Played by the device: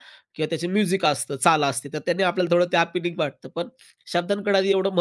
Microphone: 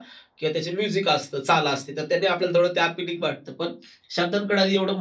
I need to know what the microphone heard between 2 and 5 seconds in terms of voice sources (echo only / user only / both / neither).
echo only